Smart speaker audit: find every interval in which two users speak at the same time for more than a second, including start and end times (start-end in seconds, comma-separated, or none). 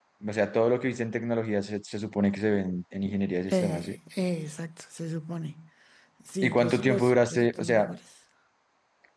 6.4-7.9